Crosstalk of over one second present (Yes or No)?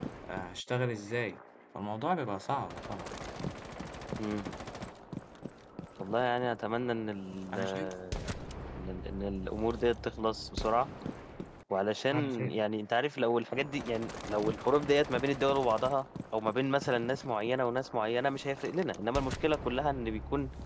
No